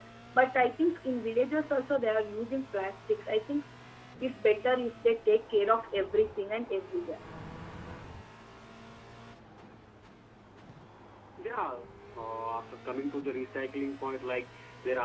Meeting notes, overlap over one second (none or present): none